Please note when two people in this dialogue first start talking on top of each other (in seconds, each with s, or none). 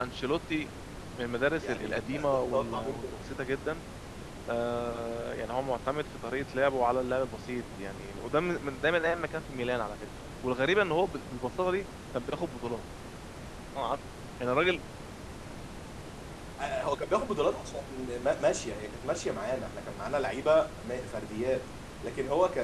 1.6 s